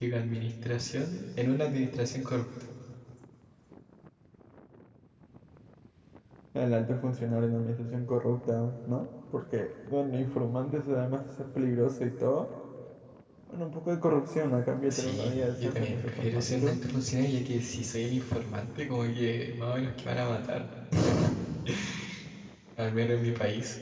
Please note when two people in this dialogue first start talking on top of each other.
14.9 s

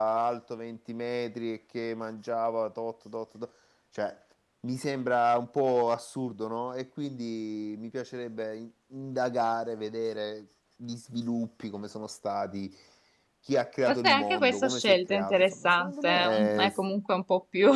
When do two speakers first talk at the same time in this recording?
13.9 s

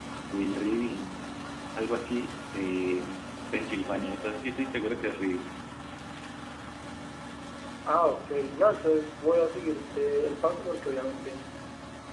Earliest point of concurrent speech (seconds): none

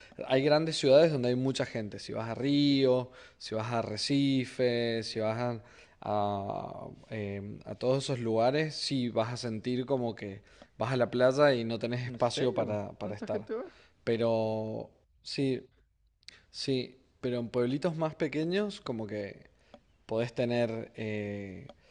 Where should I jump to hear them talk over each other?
12.1 s

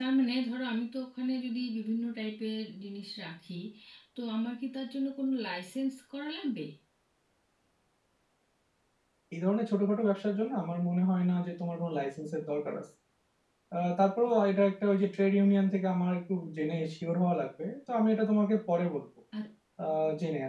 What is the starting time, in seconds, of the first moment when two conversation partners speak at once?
none

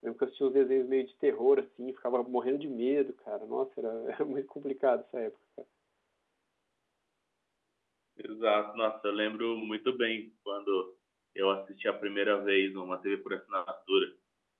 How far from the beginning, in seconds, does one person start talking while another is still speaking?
none

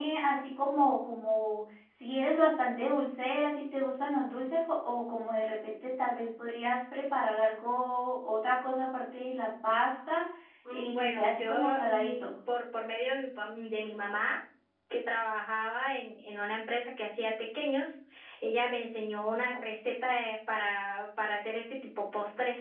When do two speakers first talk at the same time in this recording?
10.7 s

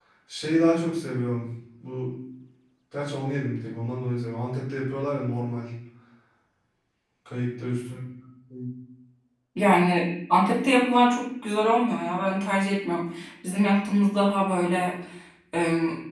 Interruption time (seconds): none

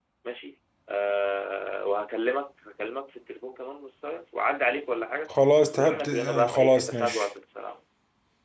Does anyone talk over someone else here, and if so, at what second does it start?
5.7 s

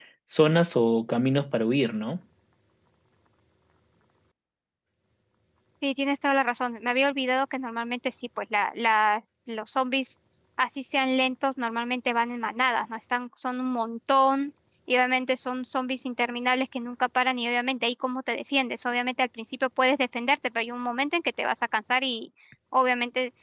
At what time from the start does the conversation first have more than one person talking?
none

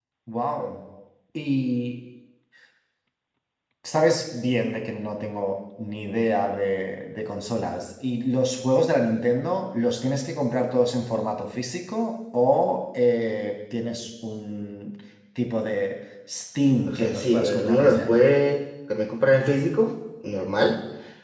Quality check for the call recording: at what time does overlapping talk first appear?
16.9 s

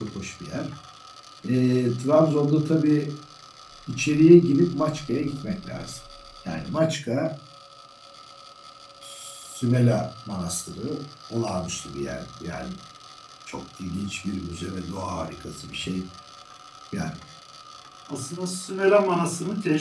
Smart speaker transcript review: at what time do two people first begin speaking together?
none

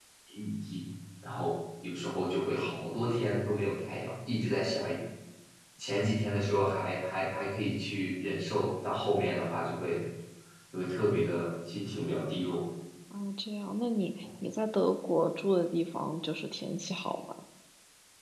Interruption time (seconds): none

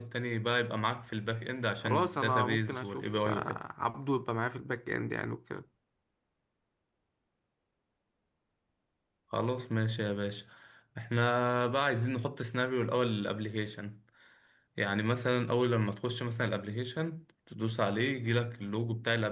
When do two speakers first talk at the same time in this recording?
1.8 s

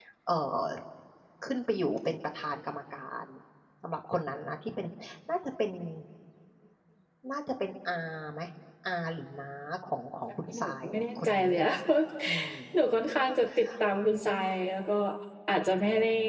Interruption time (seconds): 10.3 s

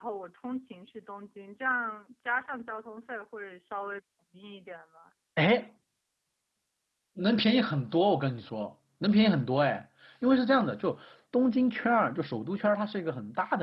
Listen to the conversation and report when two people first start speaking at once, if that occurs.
none

